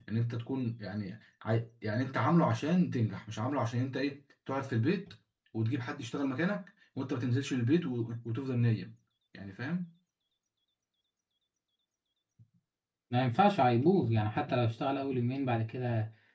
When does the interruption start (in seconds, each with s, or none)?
none